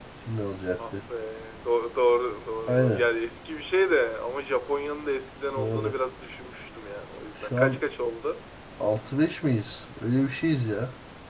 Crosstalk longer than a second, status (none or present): none